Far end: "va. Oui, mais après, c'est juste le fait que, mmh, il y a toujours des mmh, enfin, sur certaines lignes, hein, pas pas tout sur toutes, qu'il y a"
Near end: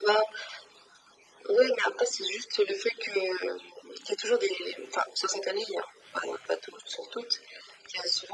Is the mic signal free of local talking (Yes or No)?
Yes